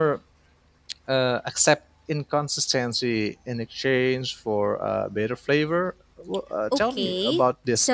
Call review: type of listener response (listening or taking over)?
taking over